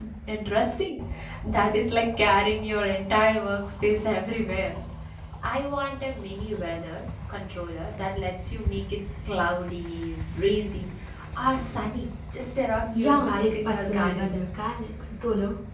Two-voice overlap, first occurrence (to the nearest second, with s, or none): 13 s